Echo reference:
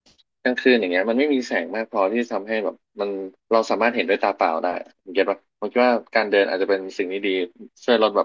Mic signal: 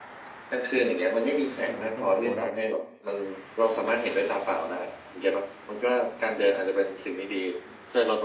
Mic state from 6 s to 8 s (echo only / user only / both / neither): echo only